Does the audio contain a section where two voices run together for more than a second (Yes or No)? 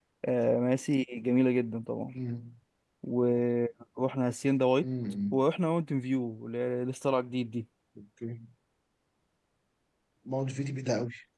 No